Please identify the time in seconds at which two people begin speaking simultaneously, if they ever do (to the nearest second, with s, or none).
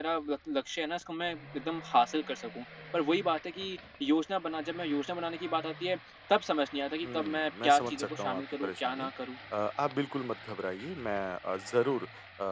7 s